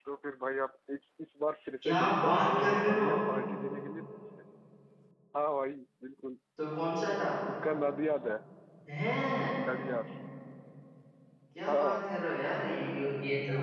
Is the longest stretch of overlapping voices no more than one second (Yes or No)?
No